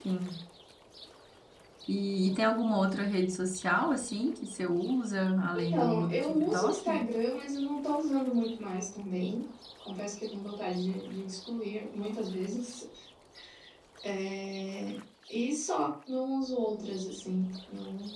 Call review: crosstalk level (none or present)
present